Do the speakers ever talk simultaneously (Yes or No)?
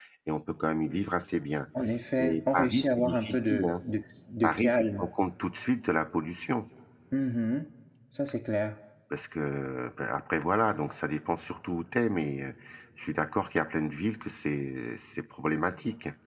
Yes